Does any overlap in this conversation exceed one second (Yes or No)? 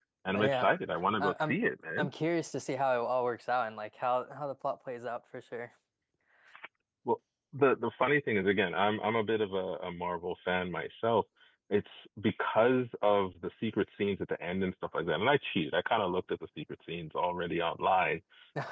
Yes